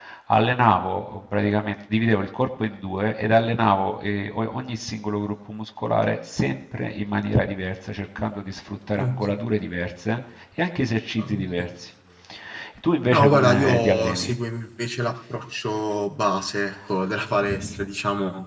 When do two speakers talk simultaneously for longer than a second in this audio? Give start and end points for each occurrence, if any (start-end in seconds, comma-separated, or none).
13.1-14.3